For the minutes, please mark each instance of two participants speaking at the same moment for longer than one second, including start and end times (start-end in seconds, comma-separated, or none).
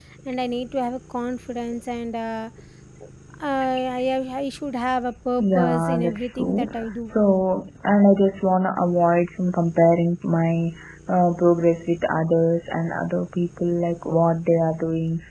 5.4-7.1